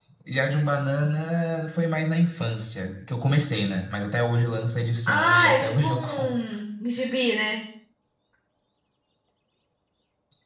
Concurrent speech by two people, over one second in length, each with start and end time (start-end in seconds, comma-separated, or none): 5.1-6.3